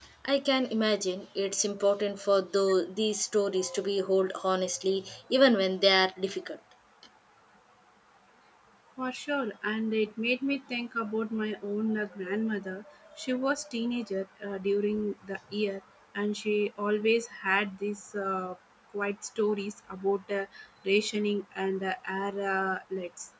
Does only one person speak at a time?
Yes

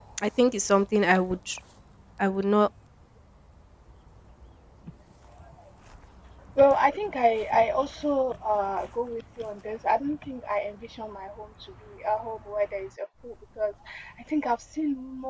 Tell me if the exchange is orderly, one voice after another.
Yes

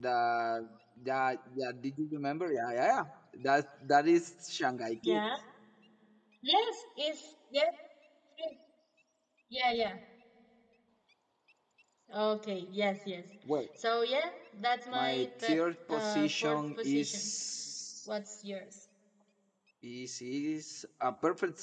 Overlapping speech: Yes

